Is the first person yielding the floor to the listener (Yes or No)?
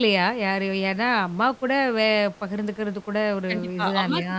Yes